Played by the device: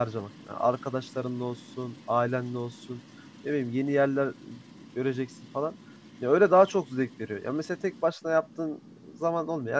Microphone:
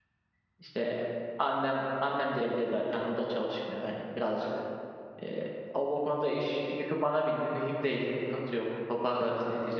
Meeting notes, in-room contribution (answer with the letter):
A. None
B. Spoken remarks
B